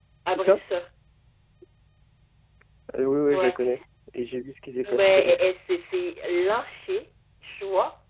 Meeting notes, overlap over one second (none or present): none